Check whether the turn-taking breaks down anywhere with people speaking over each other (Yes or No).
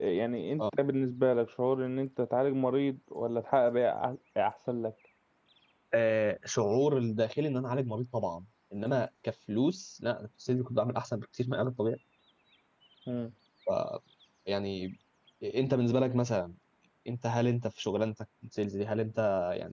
No